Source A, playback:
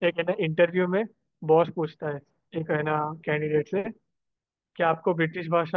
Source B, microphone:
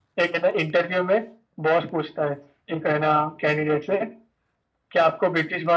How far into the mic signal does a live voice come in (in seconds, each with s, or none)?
none